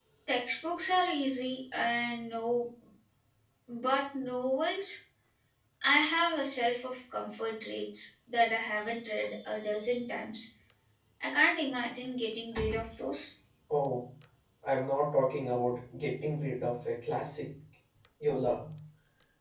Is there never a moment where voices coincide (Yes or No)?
Yes